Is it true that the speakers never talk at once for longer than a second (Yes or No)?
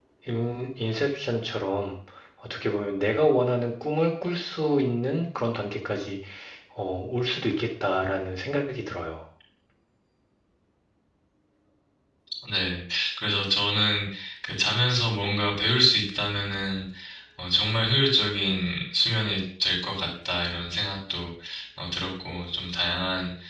Yes